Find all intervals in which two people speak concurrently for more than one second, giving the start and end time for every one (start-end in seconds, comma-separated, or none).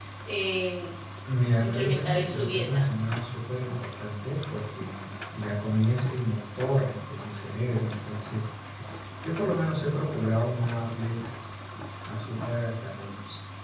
1.6-2.8